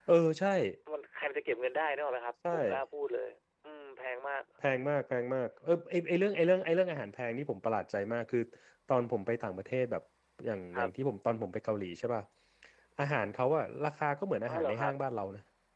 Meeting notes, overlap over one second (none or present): none